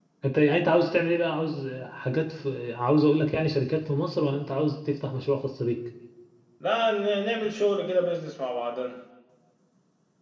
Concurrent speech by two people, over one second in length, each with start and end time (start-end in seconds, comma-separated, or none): none